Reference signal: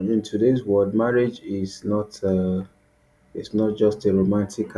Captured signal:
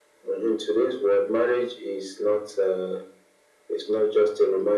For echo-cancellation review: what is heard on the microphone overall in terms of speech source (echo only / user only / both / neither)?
echo only